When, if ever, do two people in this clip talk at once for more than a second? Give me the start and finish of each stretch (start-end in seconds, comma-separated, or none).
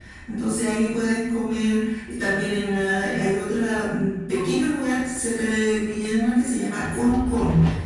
none